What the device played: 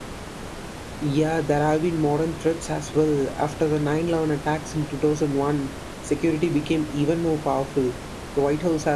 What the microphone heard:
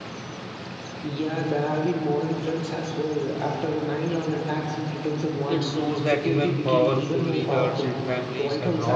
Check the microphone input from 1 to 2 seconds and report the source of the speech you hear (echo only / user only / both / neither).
echo only